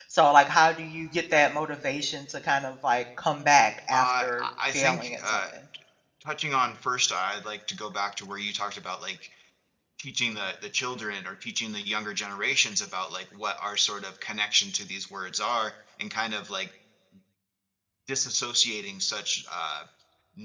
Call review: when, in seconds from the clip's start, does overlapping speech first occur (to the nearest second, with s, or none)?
4 s